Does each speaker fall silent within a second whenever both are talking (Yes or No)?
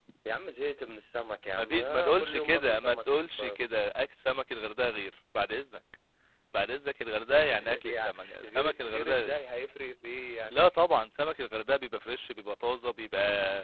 No